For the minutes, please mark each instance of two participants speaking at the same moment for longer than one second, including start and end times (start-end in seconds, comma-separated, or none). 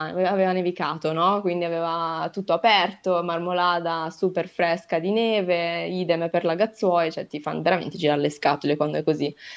none